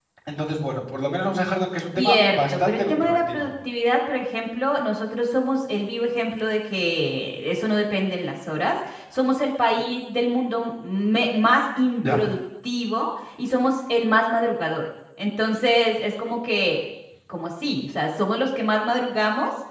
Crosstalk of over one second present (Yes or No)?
Yes